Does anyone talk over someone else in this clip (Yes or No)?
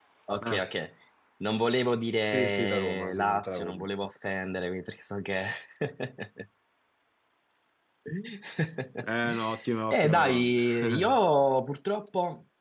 Yes